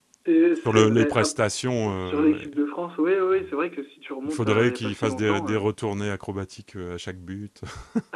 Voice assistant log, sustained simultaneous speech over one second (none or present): present